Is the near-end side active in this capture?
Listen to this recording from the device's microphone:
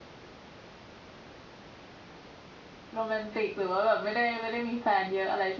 Yes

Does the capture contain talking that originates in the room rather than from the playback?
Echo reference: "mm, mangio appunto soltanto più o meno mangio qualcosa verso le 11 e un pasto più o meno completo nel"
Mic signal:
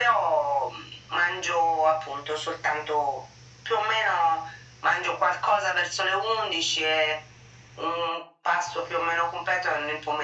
No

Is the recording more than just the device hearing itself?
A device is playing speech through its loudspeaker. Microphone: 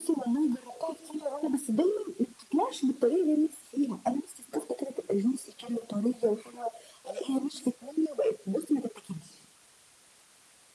No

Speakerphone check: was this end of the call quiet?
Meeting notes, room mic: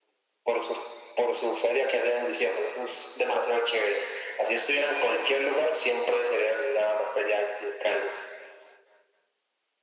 Yes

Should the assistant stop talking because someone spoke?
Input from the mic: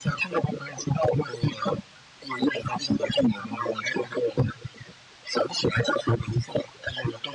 No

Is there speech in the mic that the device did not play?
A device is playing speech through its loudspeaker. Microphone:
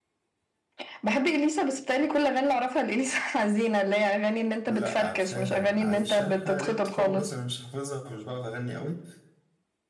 Yes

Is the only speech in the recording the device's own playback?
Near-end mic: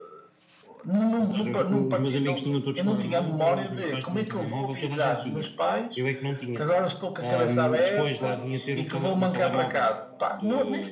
No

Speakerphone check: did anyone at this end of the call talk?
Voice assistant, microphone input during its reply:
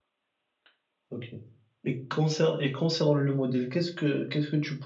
Yes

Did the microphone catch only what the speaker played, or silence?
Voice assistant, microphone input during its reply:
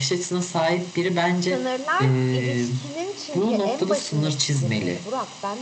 No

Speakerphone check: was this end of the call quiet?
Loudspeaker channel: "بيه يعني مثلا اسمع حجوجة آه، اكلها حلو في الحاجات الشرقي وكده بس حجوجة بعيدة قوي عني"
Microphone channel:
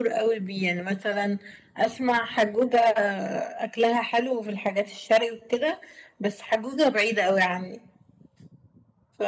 Yes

